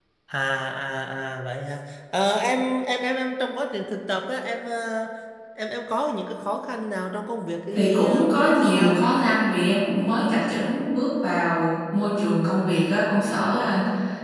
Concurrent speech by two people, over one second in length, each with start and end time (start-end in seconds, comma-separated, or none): 7.7-9.0